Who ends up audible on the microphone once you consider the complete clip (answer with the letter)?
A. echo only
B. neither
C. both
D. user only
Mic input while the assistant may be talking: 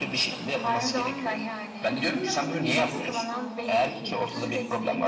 C